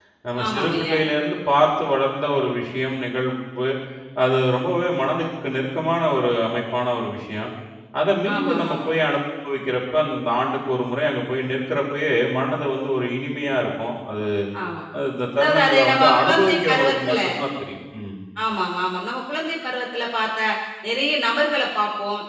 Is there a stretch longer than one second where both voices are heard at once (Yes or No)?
Yes